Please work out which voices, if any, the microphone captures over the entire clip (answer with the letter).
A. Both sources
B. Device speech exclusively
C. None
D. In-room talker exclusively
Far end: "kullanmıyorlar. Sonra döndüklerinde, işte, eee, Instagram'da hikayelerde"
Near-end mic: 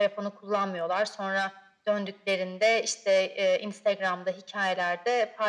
B